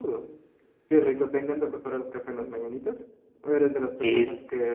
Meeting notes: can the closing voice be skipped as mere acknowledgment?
Yes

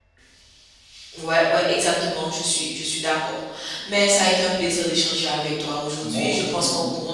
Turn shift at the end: No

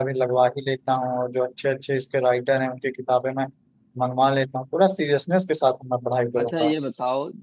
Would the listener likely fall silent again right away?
No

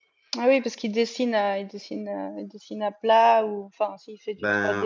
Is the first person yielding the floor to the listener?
Yes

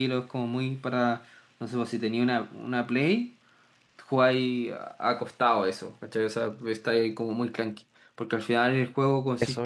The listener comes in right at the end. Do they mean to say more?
No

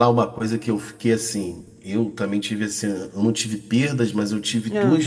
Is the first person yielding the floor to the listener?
No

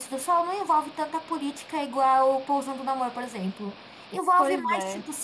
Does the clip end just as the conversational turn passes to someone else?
No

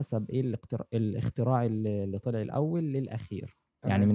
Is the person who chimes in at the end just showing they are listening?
Yes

